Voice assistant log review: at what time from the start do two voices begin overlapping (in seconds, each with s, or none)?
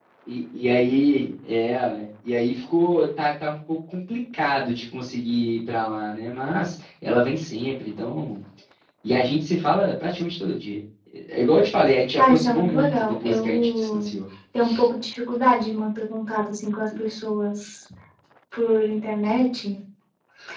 12.2 s